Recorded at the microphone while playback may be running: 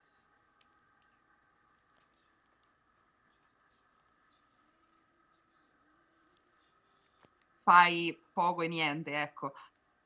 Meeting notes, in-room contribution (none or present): present